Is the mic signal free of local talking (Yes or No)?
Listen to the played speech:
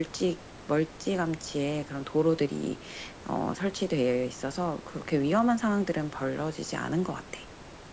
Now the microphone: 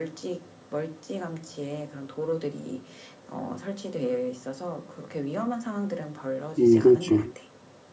No